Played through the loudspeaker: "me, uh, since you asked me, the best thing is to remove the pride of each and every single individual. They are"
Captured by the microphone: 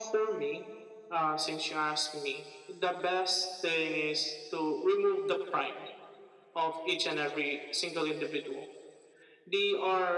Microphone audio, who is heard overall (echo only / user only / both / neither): echo only